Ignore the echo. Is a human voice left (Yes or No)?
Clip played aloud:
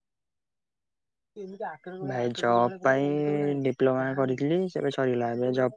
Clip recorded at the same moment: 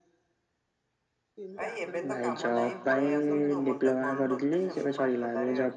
Yes